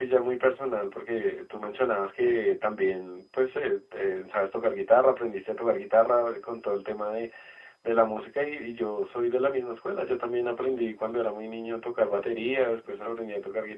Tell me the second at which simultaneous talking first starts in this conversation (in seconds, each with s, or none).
none